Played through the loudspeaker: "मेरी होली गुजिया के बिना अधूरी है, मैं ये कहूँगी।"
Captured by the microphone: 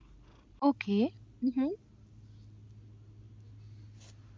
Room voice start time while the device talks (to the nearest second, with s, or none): 1 s